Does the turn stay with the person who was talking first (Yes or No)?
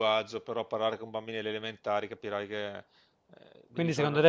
No